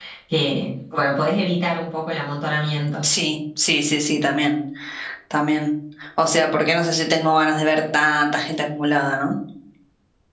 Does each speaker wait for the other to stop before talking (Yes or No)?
Yes